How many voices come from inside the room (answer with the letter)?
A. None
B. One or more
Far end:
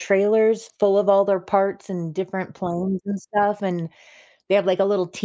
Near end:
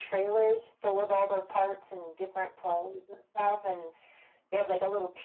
A